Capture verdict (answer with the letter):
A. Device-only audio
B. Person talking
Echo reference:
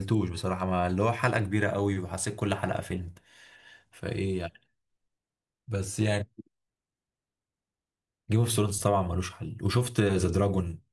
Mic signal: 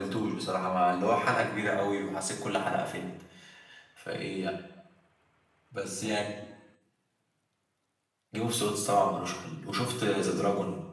A